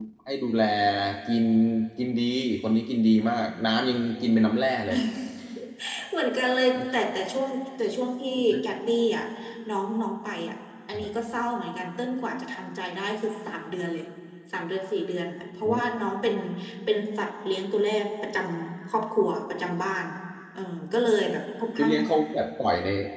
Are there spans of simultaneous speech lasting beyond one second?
No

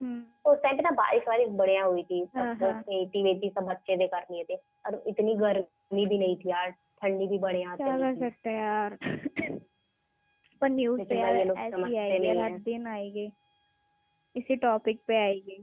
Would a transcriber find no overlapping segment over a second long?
No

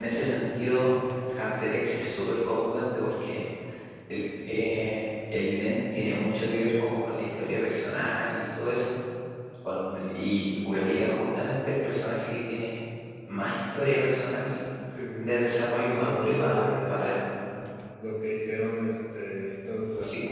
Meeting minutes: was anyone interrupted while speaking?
Yes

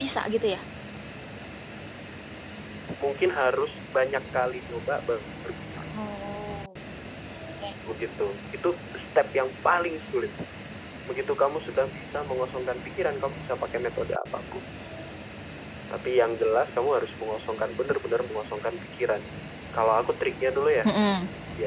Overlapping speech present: No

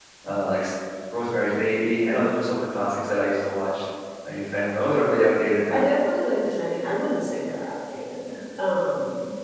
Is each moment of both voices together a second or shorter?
Yes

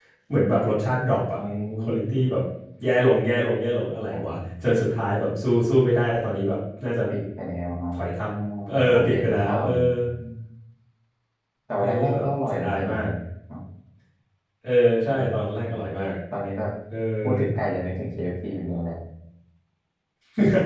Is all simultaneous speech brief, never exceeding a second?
No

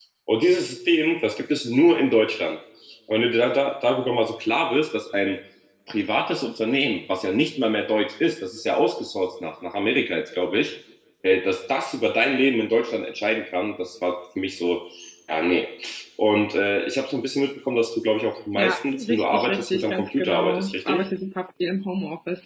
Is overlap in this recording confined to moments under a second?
No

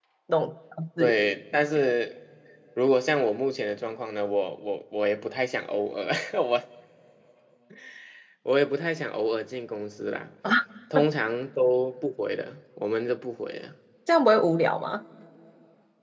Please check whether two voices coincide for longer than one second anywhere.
No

